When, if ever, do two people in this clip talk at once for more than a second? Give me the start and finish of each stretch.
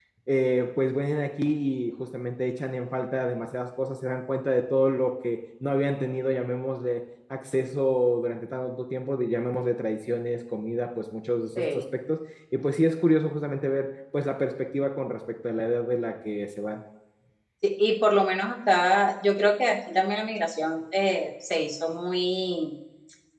none

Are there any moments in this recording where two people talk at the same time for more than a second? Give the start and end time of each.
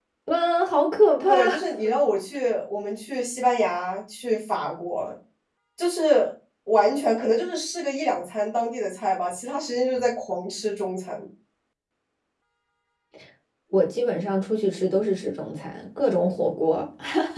none

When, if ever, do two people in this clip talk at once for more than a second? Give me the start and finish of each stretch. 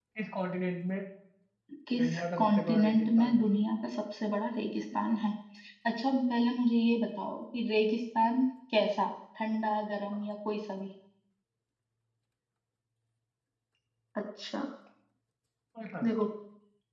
1.9-3.4

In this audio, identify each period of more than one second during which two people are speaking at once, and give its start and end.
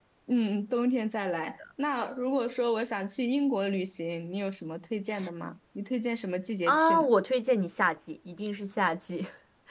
none

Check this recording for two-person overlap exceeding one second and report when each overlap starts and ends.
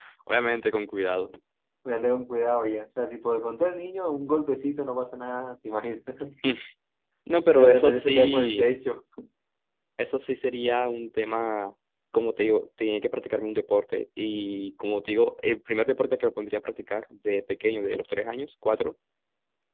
7.4-8.7

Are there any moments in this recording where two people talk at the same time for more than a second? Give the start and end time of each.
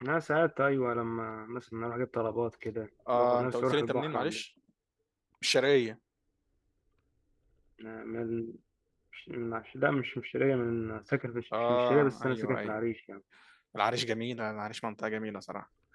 3.1-4.4, 11.6-12.8

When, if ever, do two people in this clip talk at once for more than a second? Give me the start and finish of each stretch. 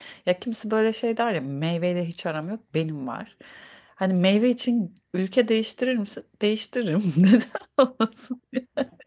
none

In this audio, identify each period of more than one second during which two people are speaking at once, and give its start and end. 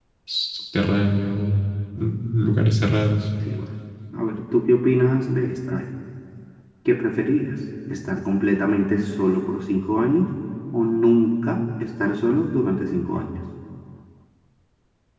none

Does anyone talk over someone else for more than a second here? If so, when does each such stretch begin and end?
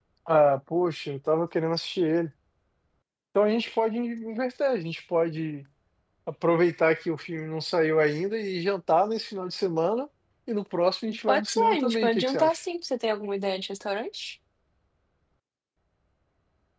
11.3-12.6

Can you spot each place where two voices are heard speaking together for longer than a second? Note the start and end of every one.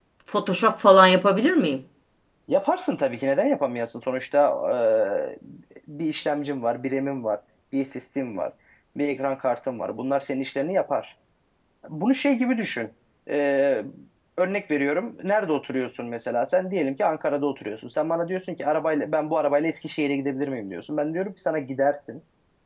none

